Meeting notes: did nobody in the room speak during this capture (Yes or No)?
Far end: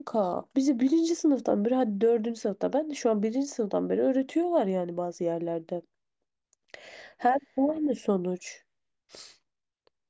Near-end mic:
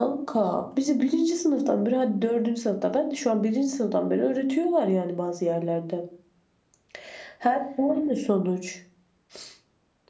Yes